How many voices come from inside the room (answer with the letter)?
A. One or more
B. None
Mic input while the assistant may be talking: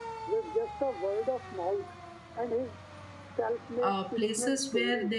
A